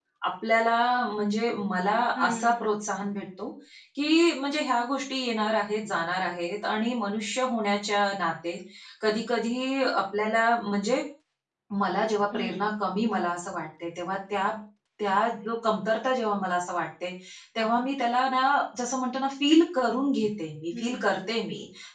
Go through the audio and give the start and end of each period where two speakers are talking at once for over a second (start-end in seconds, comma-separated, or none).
none